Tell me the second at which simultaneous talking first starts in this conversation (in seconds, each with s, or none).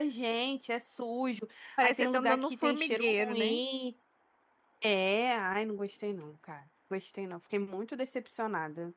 1.8 s